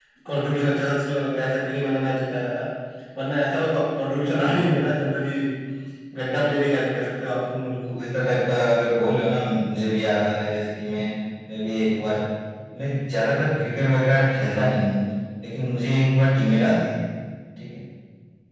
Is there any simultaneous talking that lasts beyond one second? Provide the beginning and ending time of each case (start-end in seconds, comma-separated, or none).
none